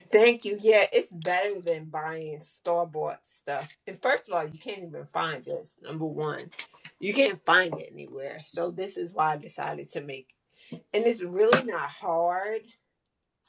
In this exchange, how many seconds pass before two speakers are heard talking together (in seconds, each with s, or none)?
none